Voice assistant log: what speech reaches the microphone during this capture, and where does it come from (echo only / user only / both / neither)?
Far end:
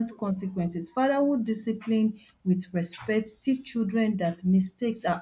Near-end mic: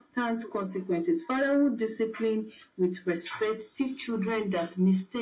echo only